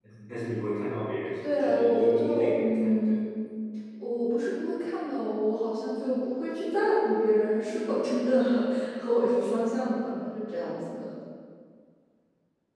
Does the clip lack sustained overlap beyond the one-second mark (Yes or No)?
No